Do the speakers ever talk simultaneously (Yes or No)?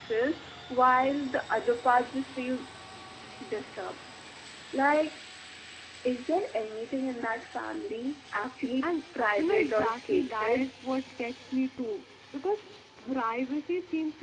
Yes